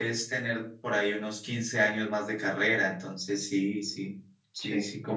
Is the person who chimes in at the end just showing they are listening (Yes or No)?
No